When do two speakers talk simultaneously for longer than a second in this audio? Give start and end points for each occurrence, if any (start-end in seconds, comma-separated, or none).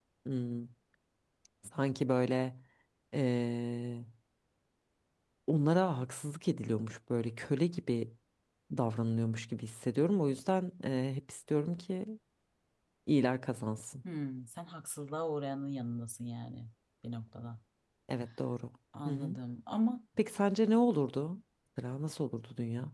none